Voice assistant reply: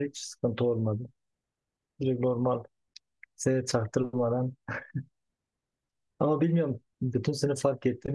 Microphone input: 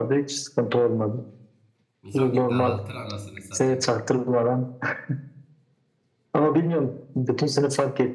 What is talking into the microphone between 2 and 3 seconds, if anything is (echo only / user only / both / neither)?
both